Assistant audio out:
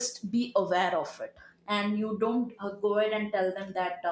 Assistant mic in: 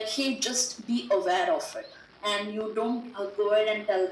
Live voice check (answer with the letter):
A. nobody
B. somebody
A